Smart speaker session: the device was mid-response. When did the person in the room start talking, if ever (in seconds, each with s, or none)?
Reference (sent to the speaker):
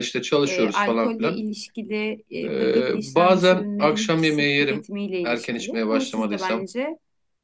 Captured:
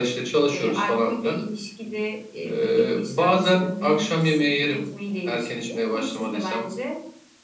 none